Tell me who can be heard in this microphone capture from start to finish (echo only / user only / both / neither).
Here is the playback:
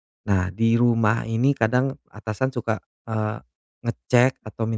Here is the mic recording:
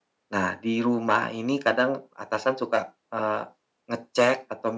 echo only